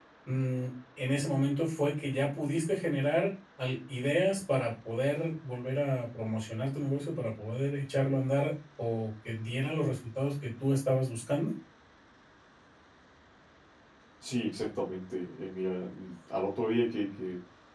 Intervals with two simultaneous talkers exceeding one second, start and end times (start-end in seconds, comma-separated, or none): none